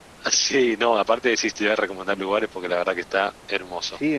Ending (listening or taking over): taking over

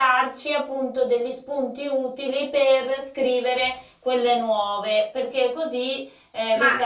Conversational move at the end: taking over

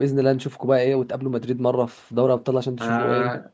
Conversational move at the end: taking over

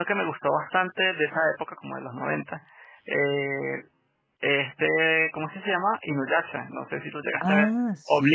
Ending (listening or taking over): taking over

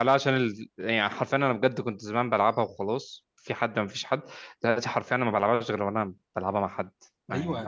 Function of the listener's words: taking over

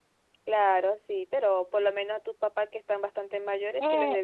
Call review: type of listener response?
taking over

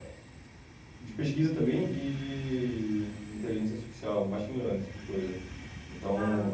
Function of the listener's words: listening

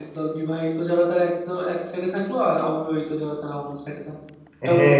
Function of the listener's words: taking over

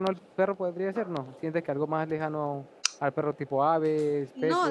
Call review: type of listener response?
taking over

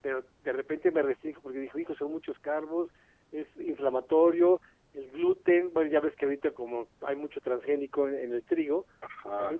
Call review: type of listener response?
listening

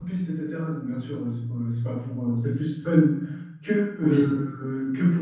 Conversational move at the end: listening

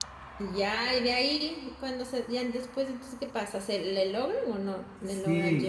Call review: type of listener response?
taking over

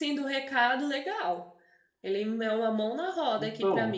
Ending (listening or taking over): listening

